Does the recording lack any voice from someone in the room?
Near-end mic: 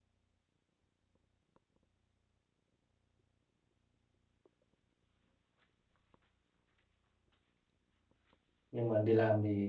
No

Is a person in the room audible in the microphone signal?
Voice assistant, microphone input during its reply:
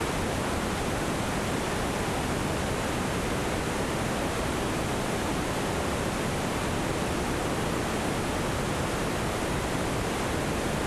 No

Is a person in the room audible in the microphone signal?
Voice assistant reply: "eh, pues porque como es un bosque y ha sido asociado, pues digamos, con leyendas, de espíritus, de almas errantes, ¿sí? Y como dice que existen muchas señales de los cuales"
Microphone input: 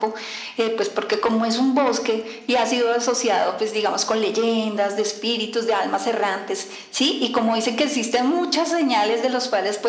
No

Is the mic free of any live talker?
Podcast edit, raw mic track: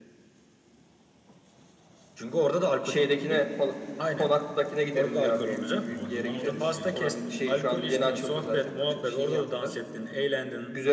No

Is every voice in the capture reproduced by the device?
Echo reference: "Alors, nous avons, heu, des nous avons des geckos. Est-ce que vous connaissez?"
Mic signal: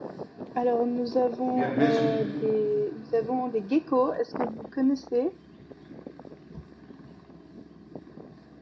No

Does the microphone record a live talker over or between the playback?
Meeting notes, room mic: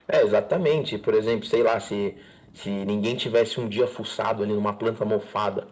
No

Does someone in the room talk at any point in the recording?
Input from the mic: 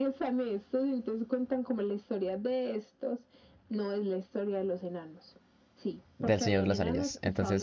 Yes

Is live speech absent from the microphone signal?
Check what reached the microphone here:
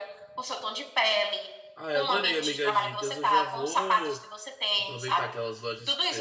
No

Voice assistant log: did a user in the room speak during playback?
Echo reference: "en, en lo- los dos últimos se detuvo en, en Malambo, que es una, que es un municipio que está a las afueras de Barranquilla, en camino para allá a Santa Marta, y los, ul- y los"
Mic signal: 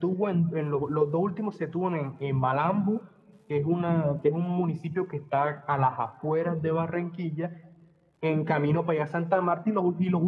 No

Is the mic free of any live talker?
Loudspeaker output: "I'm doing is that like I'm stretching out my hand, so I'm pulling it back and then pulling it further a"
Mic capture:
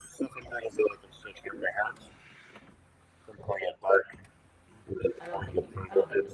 No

